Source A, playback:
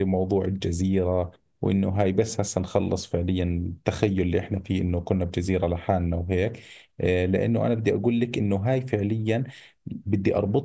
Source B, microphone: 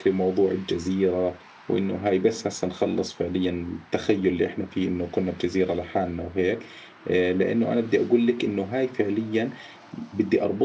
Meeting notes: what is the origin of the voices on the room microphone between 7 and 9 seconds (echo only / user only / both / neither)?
echo only